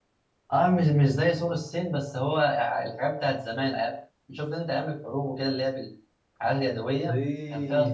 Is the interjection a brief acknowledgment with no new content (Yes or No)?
No